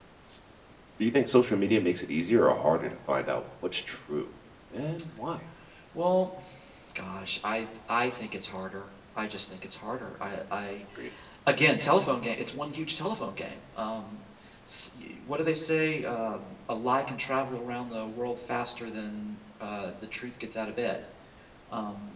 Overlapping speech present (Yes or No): No